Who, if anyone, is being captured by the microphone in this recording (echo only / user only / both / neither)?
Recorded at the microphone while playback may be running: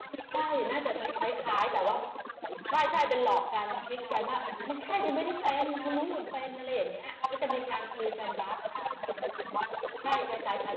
both